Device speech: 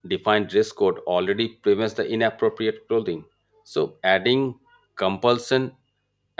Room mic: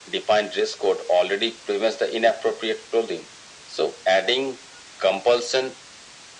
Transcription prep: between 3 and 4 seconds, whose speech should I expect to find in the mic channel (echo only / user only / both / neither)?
echo only